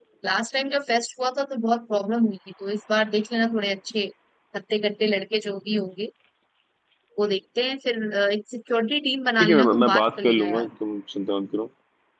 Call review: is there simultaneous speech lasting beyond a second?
Yes, from 9.4 s

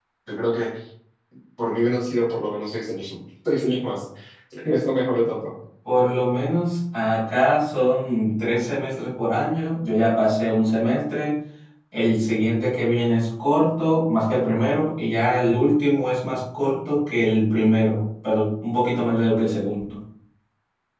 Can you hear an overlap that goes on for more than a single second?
No

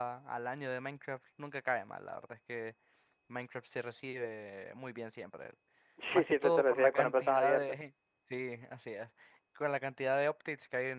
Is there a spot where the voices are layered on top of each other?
Yes, from 6.1 s

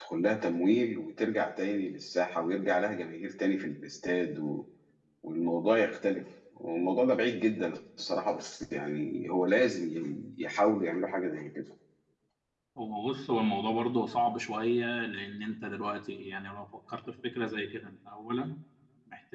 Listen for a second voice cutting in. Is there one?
No

